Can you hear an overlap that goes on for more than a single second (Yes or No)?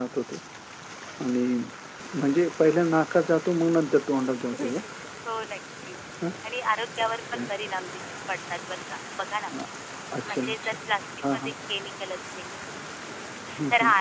No